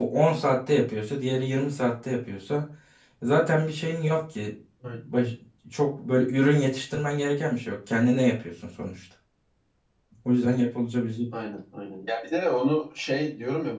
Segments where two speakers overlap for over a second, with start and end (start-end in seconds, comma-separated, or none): none